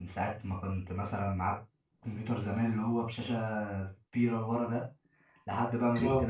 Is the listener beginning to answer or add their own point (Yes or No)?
No